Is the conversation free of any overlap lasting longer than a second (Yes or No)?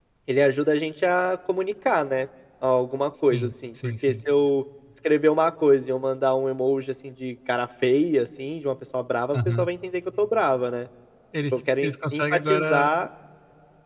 No